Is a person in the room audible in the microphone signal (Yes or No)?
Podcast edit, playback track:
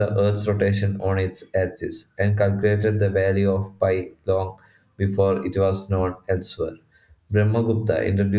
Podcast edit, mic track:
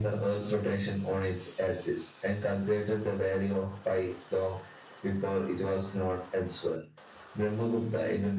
No